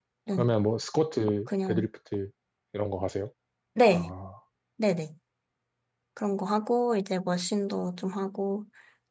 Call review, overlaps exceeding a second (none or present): none